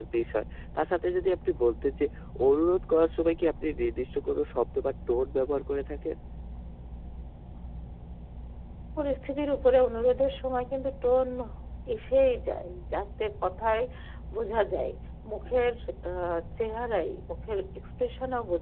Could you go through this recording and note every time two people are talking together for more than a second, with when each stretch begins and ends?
none

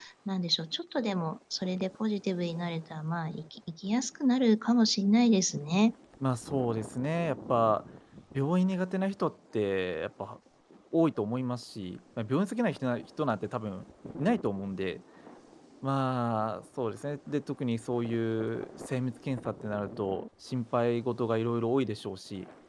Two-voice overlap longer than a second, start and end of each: none

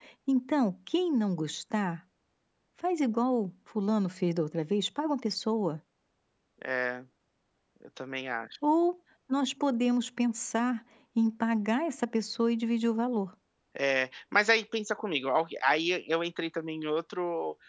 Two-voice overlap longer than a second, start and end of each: none

